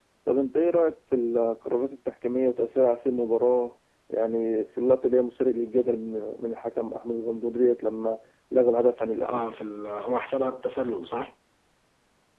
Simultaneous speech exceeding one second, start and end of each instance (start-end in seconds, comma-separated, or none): none